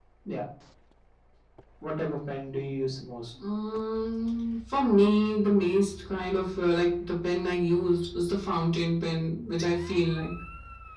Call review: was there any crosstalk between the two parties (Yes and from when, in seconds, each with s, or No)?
No